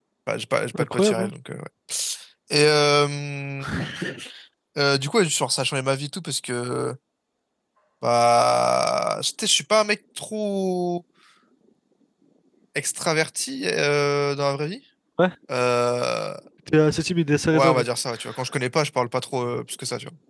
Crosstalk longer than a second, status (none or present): none